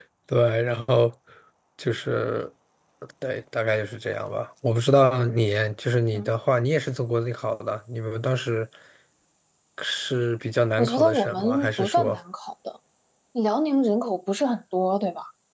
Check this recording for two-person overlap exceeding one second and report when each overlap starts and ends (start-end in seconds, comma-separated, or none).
10.8-12.2